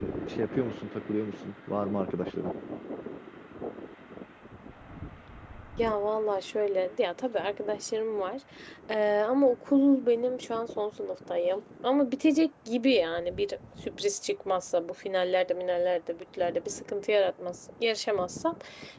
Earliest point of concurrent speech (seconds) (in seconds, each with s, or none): none